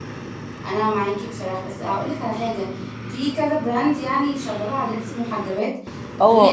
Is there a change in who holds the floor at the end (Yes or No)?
Yes